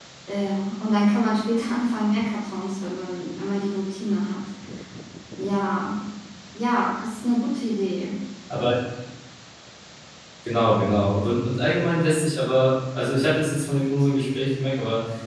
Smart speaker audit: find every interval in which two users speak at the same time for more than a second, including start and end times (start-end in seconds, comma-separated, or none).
none